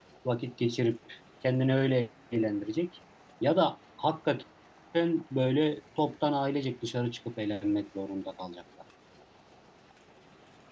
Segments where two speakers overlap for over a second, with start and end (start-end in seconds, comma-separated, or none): none